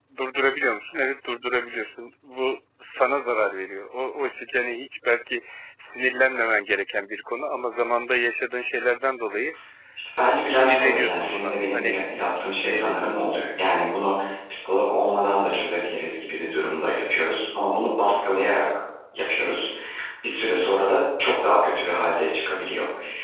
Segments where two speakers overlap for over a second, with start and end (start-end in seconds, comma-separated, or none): 10.4-11.9